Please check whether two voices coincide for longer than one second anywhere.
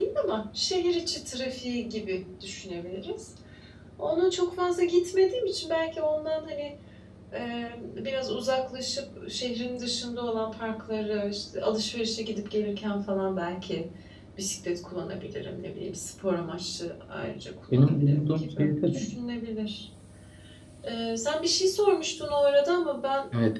Yes, from 17.7 s

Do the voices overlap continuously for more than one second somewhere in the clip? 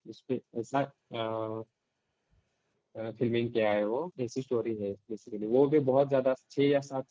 No

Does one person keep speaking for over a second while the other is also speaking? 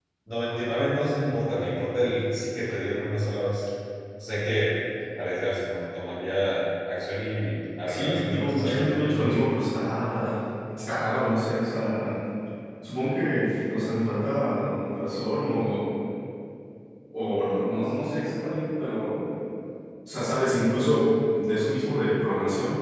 Yes, from 7.9 s

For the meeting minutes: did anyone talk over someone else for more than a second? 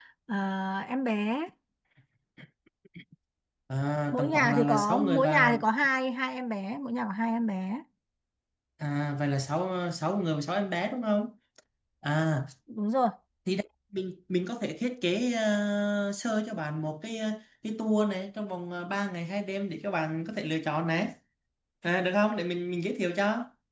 Yes, from 4.1 s

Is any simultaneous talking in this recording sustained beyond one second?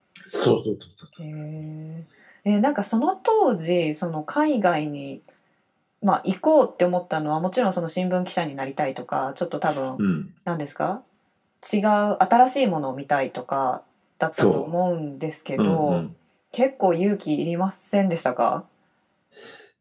No

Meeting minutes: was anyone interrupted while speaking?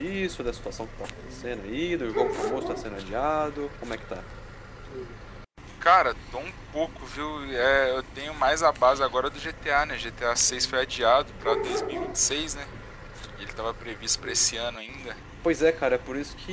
No

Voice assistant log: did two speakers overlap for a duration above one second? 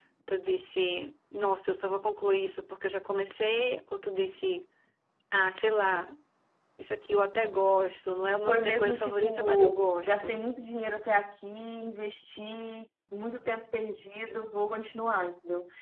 Yes, from 8.5 s

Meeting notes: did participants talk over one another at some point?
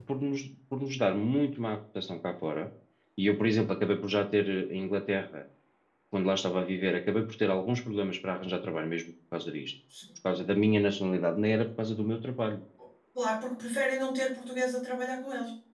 No

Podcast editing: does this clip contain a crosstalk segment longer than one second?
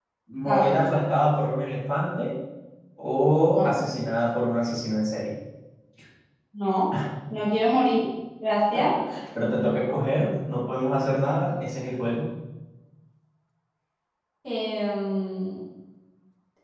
No

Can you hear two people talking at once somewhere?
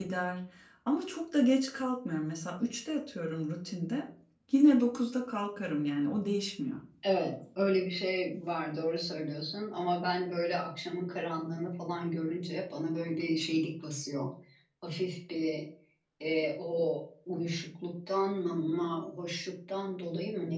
No

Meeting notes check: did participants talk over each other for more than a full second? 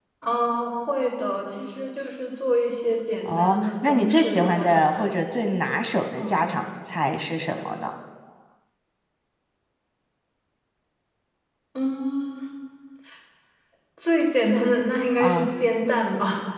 Yes, from 3.2 s

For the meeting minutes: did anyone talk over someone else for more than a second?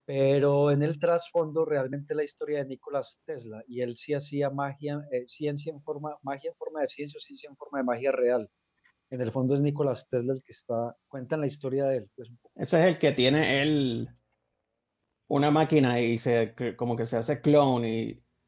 No

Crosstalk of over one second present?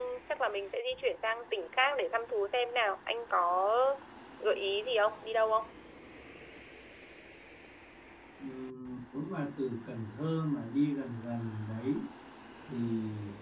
No

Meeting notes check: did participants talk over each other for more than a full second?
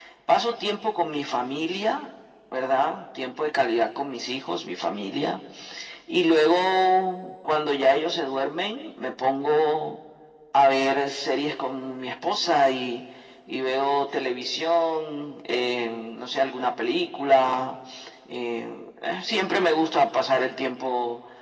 No

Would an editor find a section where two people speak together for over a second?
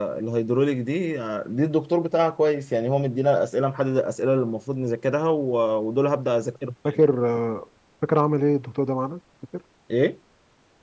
No

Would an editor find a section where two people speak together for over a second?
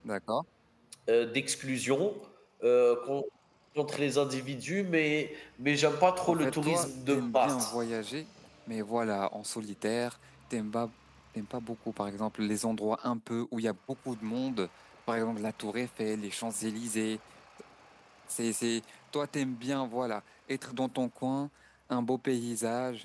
Yes, from 6.2 s

